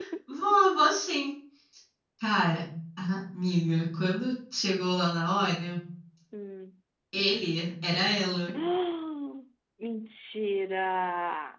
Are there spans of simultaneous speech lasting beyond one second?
No

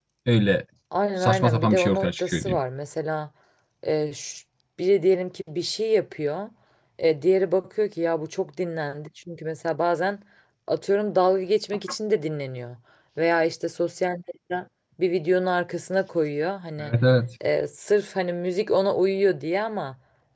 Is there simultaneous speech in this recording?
Yes, from 1.2 s

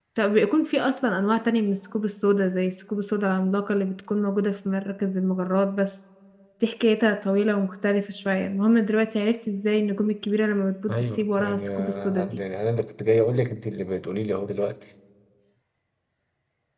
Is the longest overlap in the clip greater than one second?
Yes, from 10.9 s

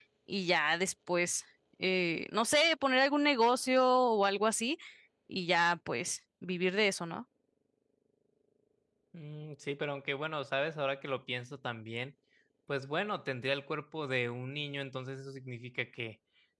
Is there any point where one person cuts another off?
No

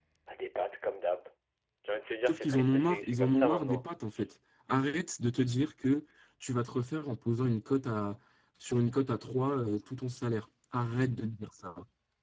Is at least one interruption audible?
Yes, from 2.3 s

